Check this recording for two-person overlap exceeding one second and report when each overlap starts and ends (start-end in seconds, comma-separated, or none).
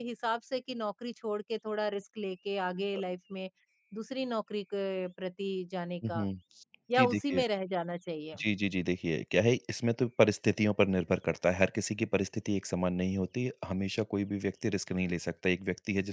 none